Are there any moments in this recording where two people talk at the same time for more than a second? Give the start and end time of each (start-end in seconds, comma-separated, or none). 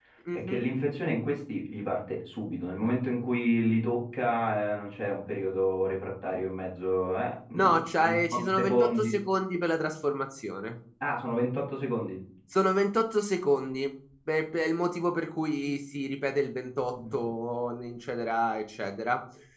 7.5-9.1